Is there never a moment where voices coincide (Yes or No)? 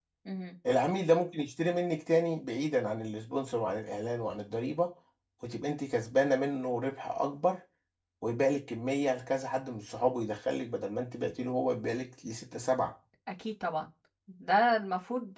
Yes